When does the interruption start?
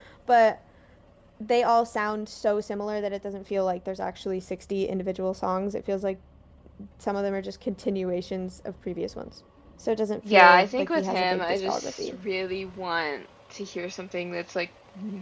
10.2 s

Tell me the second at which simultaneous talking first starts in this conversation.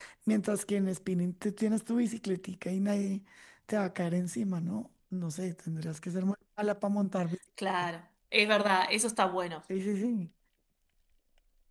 none

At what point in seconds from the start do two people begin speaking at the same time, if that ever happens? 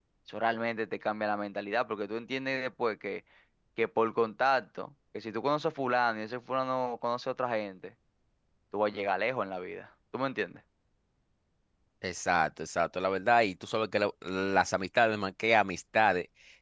none

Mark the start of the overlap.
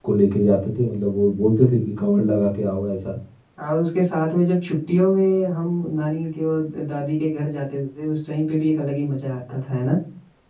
none

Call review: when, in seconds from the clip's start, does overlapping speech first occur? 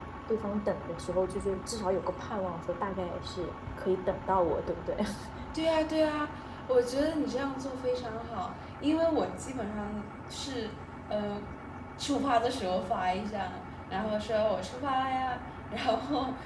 none

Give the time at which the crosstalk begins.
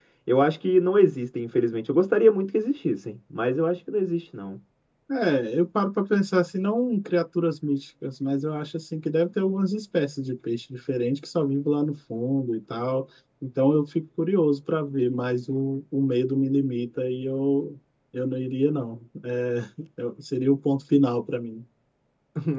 none

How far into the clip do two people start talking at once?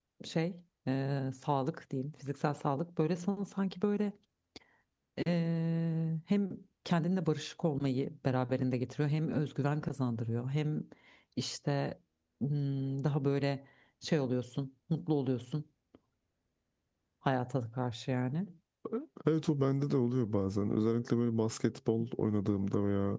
none

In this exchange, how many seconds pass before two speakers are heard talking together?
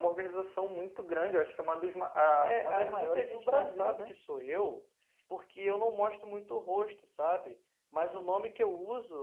2.4 s

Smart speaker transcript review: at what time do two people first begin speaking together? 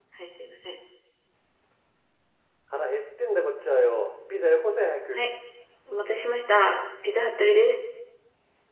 none

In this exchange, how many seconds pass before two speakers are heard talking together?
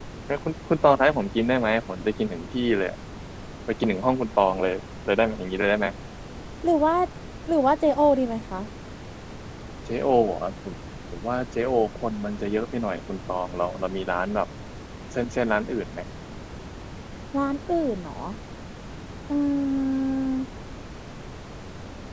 none

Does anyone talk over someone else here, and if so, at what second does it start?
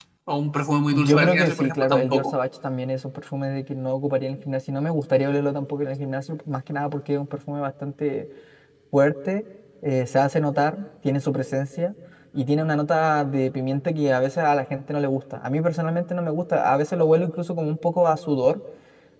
0.9 s

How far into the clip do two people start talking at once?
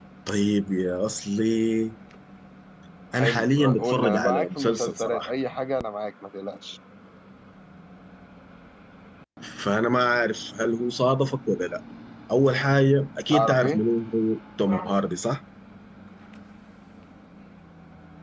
3.1 s

